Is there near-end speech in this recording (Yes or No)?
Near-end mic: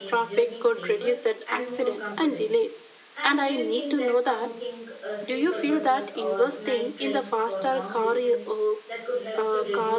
Yes